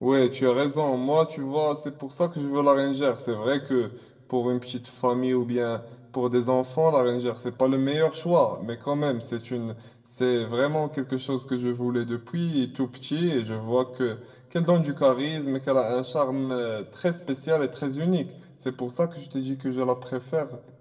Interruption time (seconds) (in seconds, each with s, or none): none